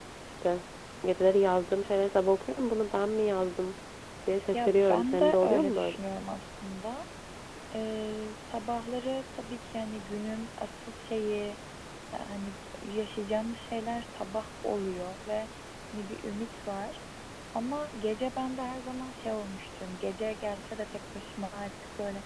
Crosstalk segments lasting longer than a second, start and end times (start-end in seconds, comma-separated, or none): 4.5-6.0